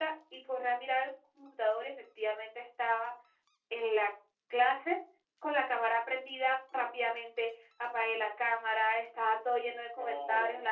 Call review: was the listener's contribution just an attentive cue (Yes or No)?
Yes